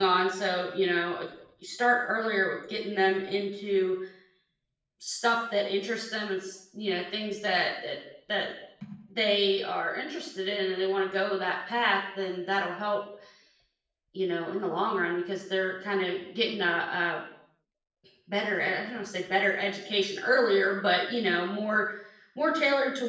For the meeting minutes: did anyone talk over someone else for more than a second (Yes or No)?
No